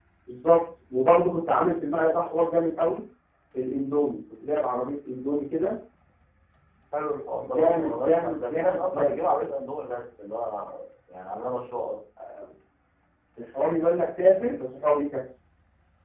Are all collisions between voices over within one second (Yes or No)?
No